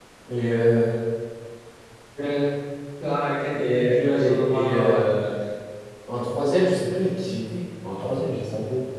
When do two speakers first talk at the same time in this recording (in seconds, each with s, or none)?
3.5 s